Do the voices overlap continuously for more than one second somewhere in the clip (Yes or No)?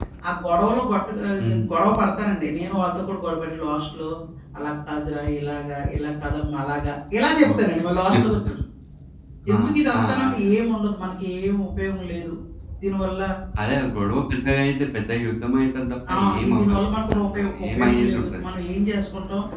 Yes